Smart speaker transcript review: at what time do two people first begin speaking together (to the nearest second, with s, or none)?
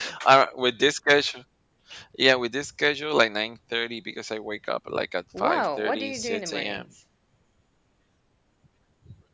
5 s